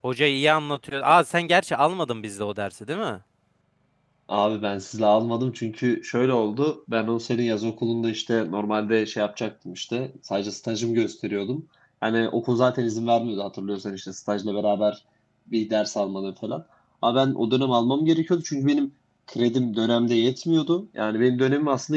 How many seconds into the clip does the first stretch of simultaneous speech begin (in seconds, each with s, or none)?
none